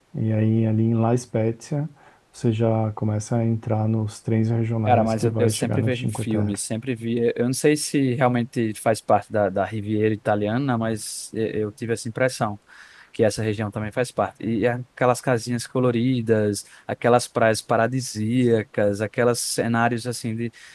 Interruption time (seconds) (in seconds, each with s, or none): 4.9 s